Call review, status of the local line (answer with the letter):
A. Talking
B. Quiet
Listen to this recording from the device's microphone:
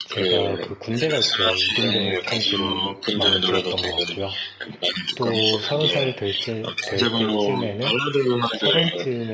A